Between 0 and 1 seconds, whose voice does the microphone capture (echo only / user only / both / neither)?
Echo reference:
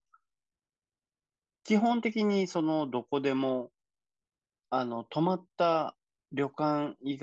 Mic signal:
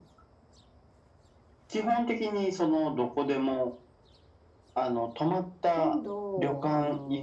neither